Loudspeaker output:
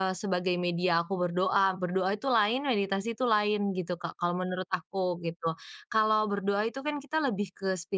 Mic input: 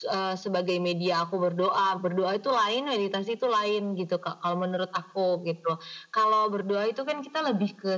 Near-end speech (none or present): none